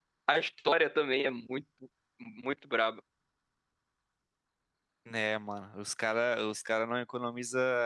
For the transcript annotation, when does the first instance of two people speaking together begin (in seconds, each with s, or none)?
none